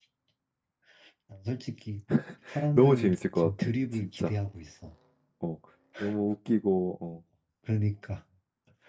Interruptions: present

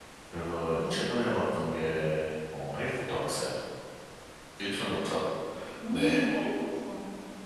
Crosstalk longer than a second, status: none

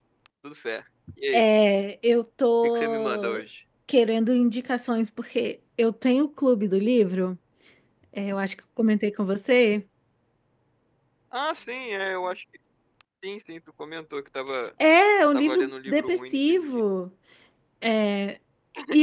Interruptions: present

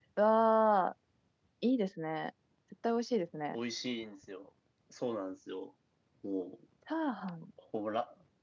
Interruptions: none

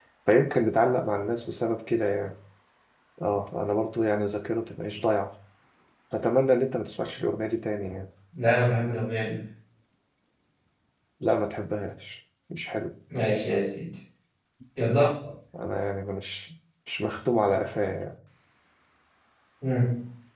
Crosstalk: none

